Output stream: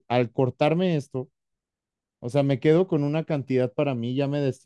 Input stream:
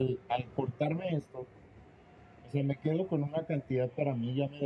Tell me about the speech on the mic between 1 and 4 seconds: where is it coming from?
echo only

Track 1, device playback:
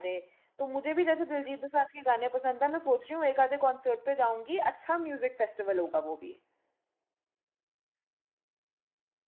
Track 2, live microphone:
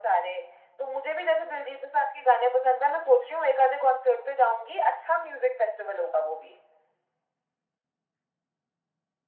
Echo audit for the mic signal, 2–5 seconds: echo only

